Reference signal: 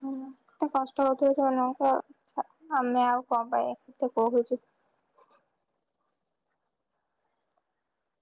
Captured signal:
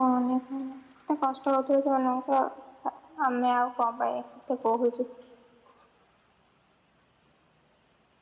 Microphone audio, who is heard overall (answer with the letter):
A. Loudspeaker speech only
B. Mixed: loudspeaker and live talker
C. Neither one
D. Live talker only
A